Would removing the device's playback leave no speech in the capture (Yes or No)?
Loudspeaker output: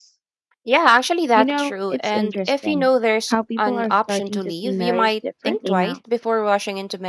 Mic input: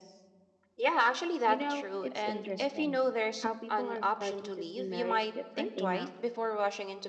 Yes